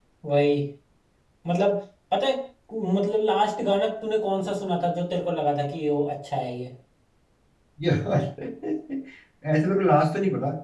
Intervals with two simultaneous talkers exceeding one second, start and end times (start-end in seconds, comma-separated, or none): none